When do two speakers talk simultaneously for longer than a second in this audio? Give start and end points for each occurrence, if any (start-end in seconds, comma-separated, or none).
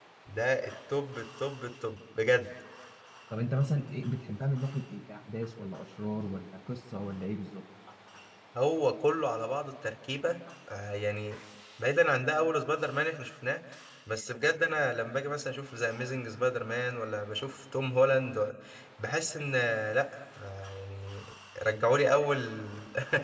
none